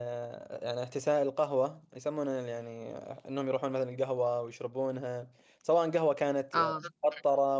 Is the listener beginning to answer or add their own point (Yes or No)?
No